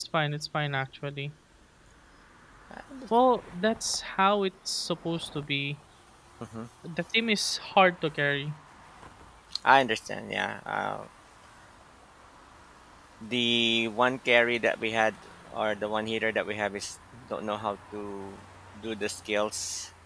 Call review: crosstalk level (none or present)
none